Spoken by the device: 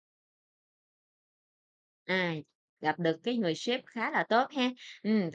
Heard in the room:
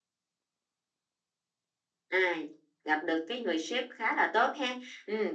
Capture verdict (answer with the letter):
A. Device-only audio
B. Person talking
A